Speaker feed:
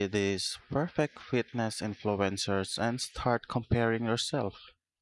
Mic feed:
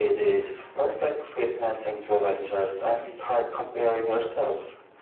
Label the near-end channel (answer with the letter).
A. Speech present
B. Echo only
B